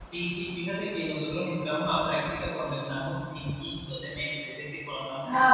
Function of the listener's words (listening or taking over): taking over